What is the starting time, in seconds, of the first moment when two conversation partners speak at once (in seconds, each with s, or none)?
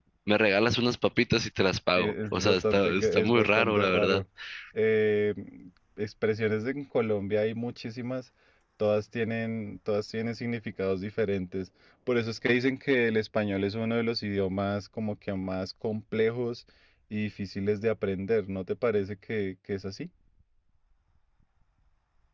2.0 s